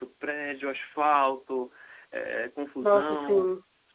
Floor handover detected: No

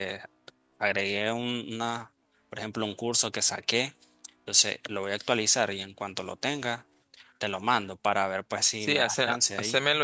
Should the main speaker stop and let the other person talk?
Yes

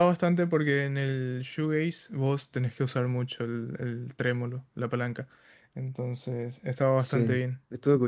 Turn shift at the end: Yes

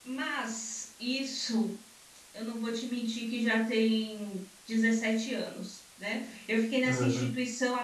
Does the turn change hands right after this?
No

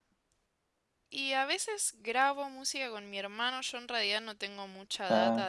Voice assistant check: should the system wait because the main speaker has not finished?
Yes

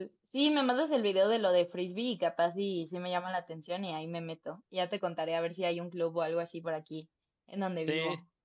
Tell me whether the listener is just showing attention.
No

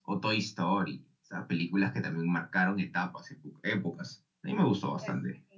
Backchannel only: No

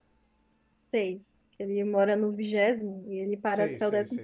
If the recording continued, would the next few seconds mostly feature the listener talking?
Yes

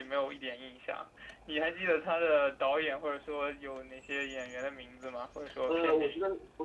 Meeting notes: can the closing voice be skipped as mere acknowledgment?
No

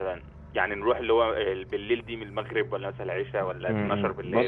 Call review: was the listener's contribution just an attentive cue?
No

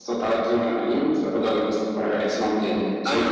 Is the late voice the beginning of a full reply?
Yes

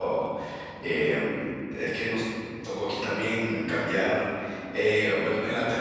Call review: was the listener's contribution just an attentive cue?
Yes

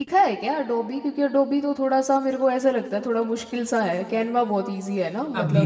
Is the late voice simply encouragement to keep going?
No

